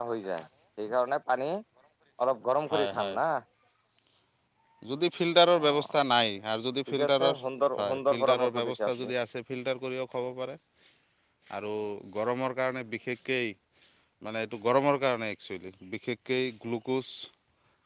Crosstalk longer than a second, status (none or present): present